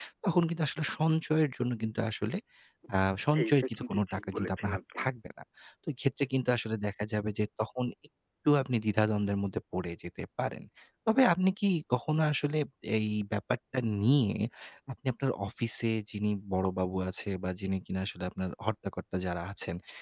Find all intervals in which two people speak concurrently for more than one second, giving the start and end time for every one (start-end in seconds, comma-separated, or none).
3.4-5.0